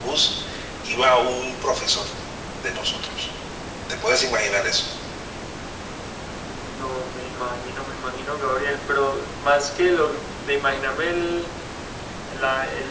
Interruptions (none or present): none